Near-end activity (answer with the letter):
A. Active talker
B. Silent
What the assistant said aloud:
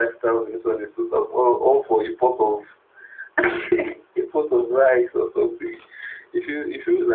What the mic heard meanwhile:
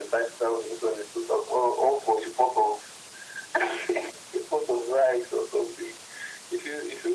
B